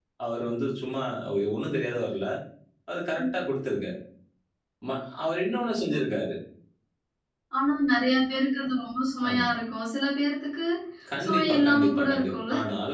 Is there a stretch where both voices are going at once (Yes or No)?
Yes